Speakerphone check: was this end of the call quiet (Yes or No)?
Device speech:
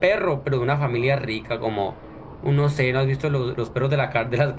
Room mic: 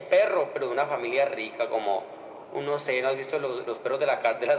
Yes